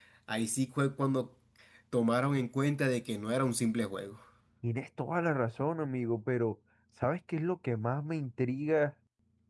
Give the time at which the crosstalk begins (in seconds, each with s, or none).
none